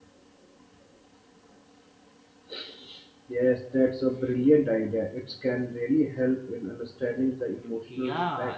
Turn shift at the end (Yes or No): Yes